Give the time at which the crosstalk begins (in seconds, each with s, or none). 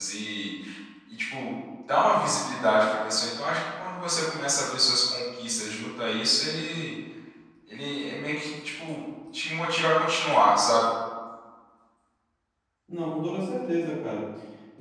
none